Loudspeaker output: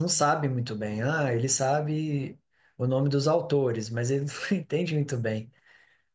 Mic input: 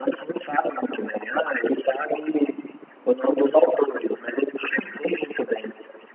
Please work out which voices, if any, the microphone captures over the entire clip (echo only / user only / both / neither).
echo only